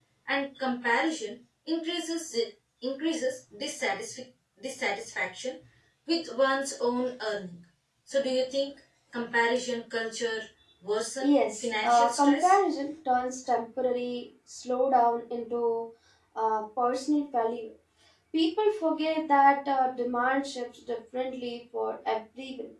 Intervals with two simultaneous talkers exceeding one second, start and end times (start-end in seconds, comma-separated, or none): 11.2-12.6